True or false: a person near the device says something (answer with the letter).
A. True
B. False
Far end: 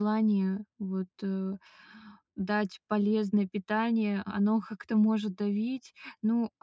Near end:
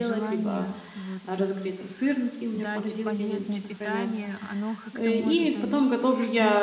A